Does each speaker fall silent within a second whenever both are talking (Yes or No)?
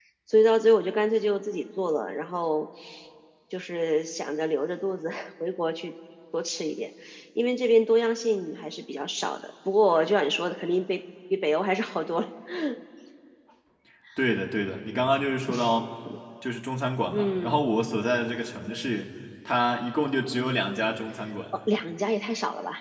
Yes